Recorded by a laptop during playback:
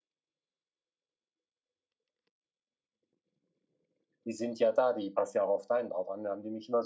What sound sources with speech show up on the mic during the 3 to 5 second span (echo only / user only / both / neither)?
user only